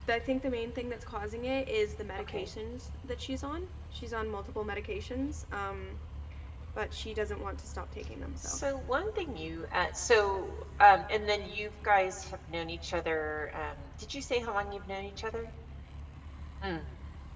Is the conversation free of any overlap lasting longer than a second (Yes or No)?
Yes